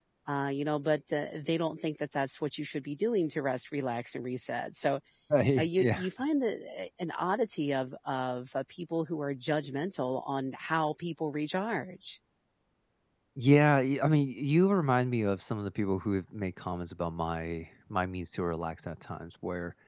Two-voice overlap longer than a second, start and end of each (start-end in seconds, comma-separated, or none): none